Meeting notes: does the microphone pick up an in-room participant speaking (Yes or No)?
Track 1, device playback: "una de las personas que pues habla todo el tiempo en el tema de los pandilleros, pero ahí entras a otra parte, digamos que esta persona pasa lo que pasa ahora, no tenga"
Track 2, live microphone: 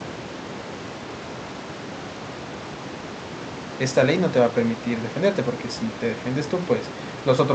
Yes